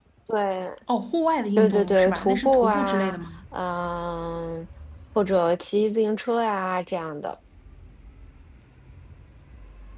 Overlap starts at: 1.6 s

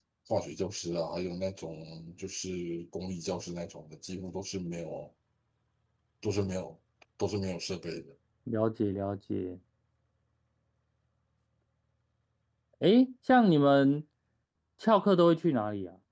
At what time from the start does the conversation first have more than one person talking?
none

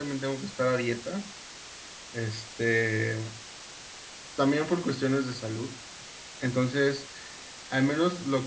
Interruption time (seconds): none

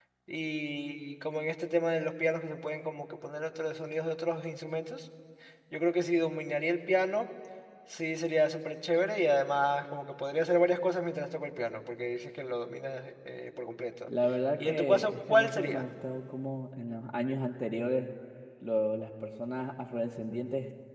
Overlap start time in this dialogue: 14.6 s

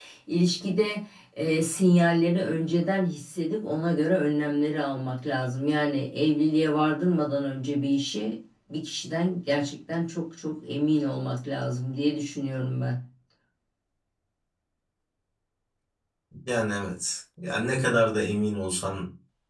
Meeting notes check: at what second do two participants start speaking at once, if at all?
none

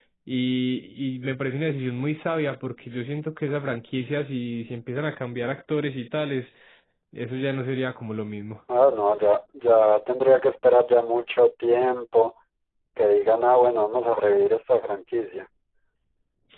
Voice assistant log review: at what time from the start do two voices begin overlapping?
none

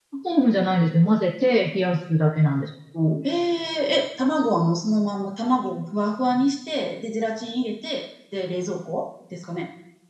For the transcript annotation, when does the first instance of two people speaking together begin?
none

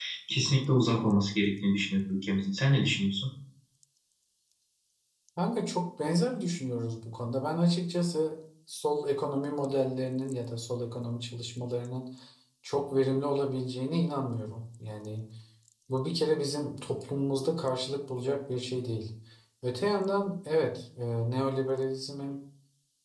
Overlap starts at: none

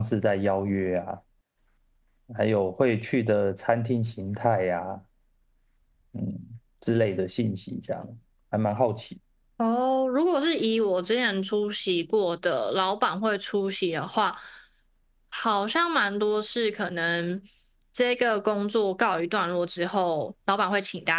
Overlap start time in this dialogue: none

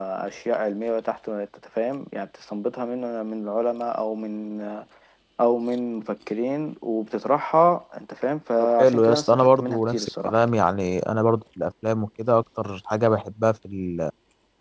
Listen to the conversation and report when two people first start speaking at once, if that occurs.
8.6 s

